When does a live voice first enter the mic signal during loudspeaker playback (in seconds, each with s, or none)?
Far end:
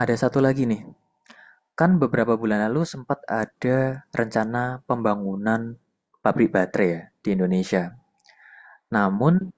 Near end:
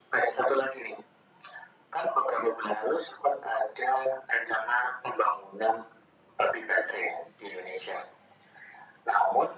none